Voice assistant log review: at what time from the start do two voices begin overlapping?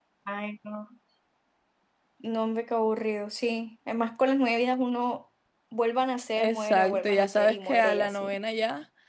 6.4 s

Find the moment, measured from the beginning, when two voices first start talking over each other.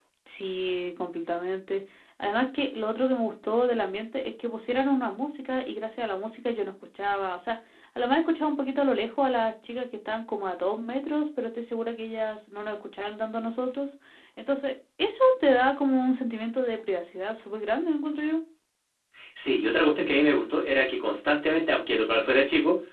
none

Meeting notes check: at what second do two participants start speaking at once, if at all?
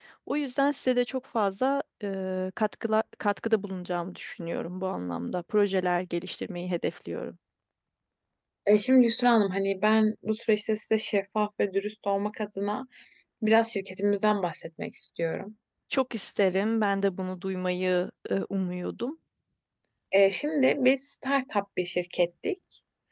none

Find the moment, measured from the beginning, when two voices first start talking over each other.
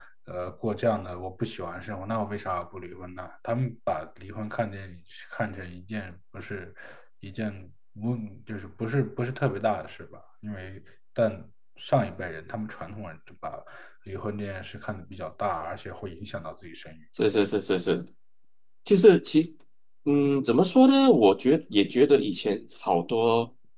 none

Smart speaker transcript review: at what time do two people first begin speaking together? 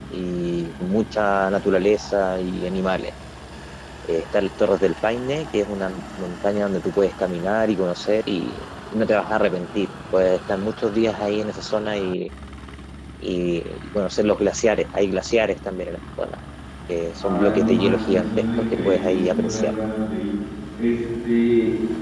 17.2 s

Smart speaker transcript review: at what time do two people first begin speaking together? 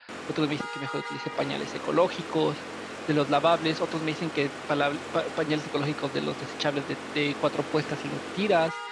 none

